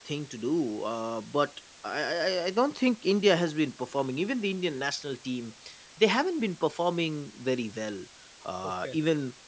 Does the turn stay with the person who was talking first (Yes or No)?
Yes